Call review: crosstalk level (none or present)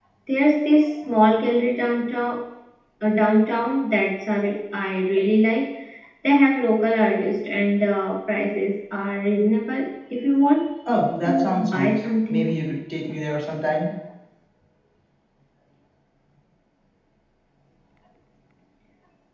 present